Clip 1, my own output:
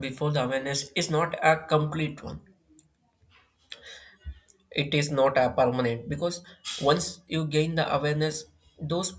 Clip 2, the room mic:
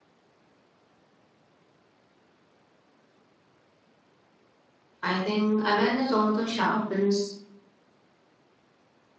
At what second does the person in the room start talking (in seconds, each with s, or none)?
5.0 s